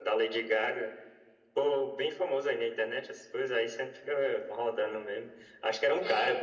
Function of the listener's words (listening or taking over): listening